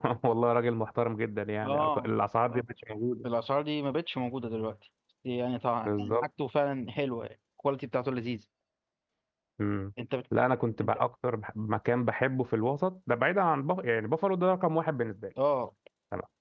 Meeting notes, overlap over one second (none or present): none